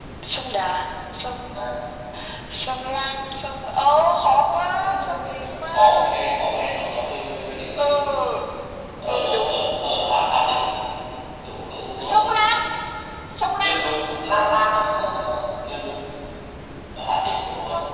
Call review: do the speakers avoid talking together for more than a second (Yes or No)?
No